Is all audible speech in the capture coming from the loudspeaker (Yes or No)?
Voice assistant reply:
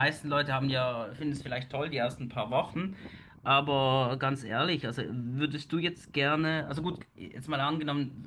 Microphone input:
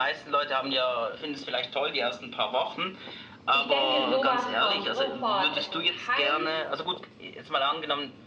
No